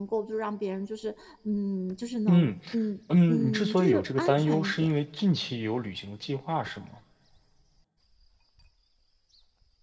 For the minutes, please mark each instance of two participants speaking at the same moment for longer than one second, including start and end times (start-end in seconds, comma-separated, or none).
3.3-4.9